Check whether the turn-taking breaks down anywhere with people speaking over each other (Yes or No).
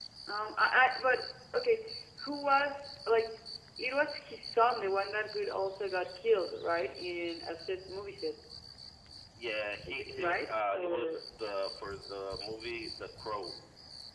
Yes